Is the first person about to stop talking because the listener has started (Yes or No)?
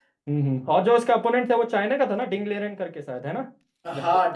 Yes